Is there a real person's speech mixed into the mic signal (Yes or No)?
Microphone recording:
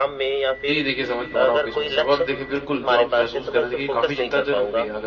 Yes